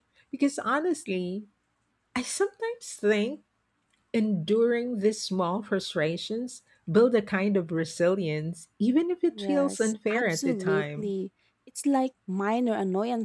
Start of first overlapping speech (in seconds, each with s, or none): 9.3 s